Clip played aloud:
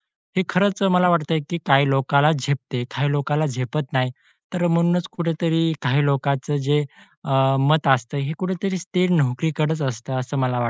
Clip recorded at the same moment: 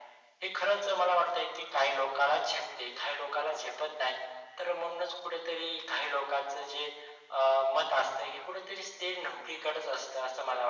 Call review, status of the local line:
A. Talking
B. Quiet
B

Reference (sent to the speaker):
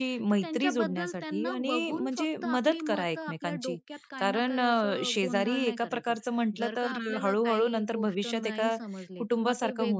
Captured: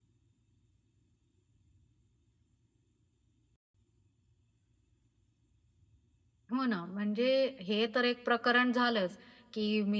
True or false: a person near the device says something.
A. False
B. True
B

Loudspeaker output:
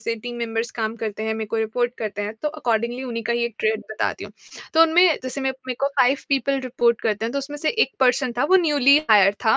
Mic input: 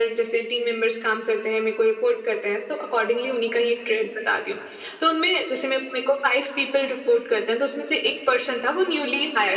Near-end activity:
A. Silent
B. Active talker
A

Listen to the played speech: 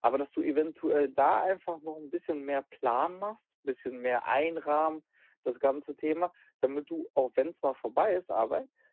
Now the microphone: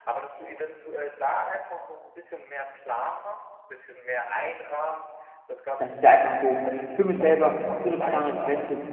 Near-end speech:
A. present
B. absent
A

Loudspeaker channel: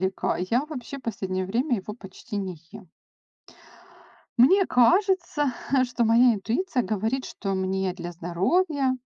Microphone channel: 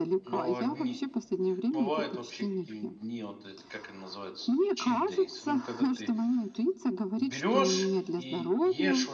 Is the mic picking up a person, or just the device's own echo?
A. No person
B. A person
B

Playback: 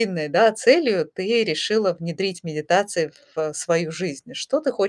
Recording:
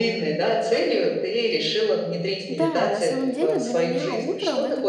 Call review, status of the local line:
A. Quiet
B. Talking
B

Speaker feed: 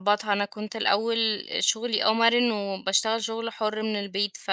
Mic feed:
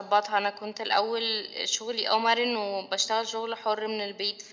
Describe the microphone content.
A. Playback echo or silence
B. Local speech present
A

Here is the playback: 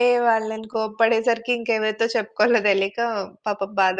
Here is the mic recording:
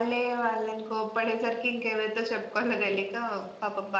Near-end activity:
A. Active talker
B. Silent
B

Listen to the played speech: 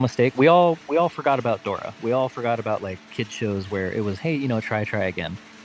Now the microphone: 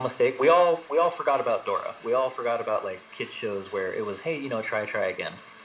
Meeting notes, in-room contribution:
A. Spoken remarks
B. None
B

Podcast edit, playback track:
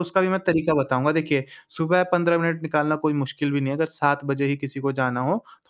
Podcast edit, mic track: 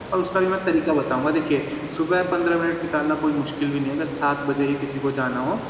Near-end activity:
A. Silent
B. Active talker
A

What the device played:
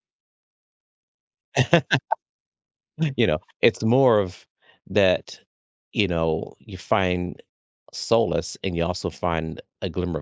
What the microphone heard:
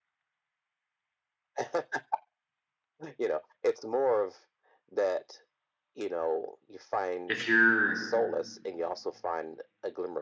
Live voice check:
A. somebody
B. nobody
A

